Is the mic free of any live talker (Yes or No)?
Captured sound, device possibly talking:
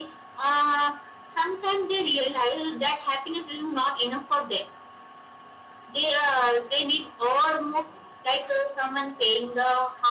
Yes